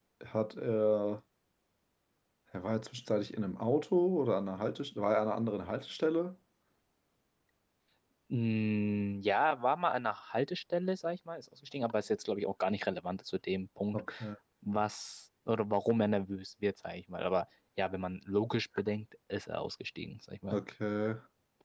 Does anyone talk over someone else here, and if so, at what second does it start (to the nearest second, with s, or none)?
none